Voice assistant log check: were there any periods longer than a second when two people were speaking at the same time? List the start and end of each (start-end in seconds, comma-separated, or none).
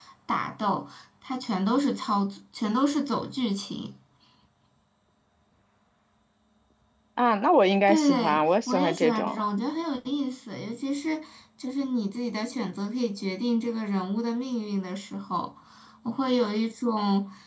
7.9-9.4